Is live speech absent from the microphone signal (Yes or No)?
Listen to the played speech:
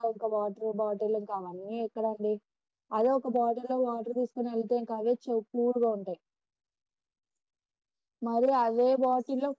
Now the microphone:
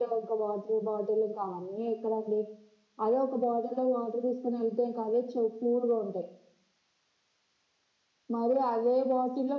Yes